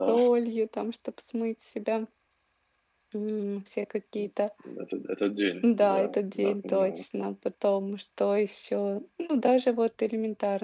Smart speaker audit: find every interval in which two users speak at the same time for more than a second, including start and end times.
5.8-7.0

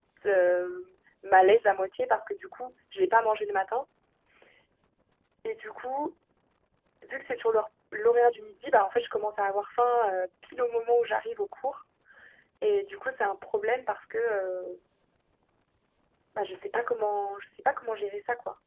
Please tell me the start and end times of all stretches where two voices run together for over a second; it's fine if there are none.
none

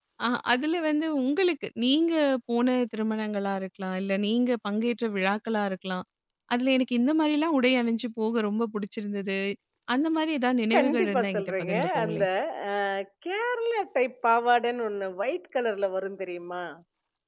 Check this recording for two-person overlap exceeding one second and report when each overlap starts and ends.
10.7-12.2

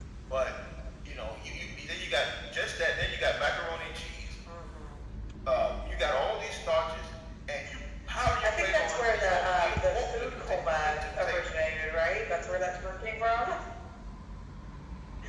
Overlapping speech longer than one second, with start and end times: 8.4-11.4

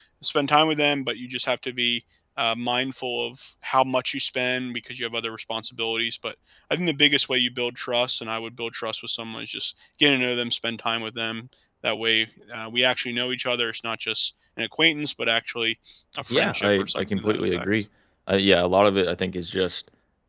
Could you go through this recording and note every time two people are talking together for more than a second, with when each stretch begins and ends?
16.3-17.7

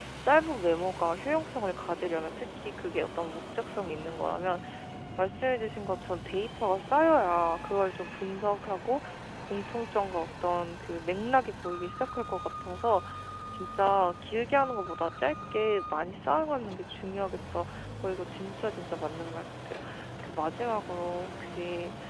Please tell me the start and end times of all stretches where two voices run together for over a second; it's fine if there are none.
none

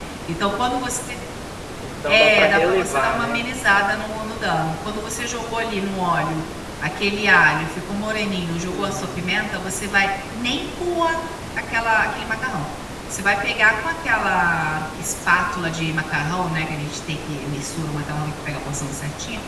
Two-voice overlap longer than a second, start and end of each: 2.1-3.4

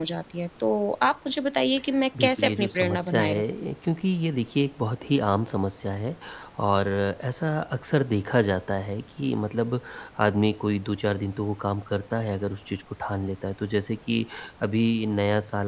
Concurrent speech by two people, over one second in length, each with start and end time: 2.2-3.7

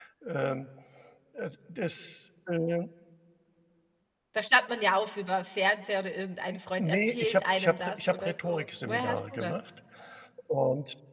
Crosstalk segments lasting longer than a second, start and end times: 6.8-9.5

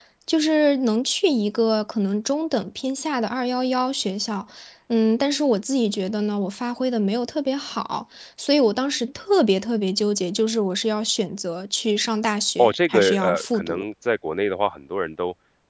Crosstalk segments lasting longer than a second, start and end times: 12.6-13.8

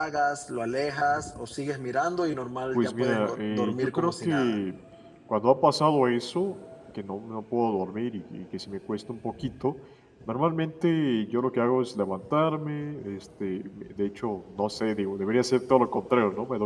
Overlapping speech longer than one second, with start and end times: 2.7-4.6

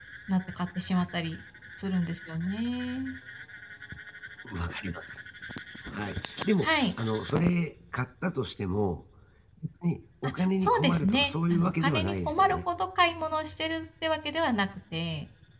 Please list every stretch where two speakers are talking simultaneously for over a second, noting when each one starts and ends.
10.2-12.6

